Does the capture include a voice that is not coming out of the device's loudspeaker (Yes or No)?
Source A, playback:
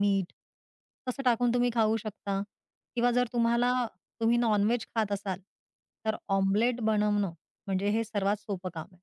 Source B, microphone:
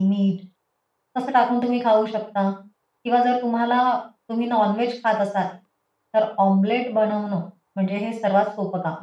No